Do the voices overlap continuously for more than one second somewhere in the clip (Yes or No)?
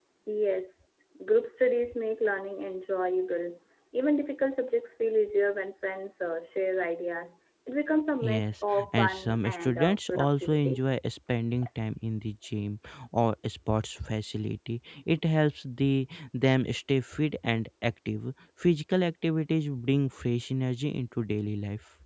Yes